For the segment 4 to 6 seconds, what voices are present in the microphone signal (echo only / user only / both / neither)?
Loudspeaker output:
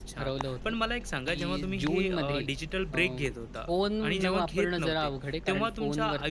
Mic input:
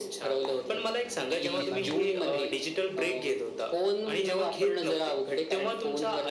echo only